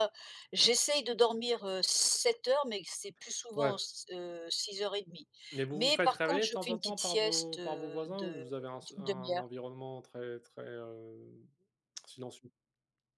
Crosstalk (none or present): present